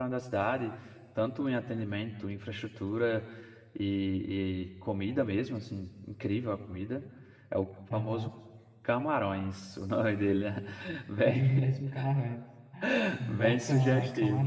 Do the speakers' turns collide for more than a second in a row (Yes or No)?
Yes